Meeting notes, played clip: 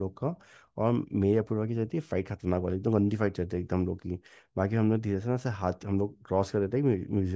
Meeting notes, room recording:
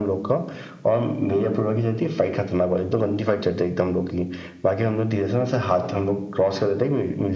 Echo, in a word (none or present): present